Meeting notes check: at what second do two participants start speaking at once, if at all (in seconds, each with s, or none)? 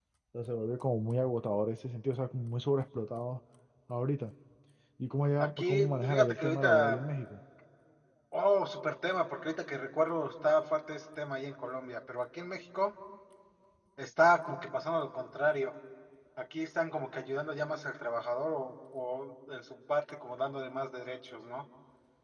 5.4 s